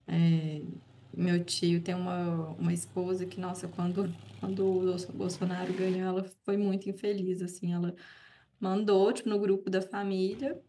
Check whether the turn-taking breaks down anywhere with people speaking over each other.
No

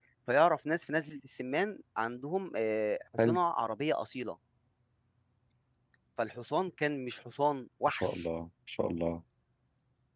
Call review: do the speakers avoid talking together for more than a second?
Yes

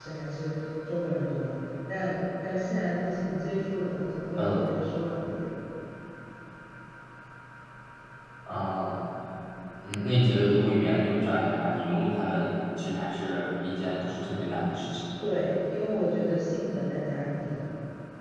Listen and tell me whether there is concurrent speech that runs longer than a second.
No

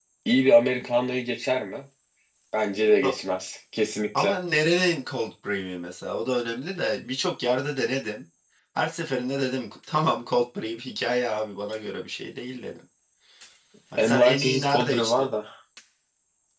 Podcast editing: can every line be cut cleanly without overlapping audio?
No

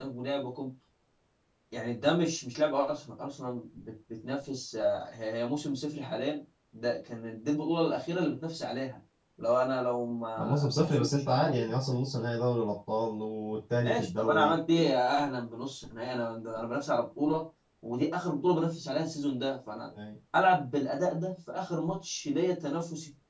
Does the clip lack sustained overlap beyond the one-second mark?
No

